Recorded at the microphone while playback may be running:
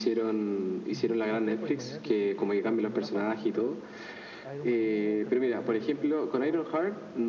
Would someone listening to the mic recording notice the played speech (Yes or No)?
Yes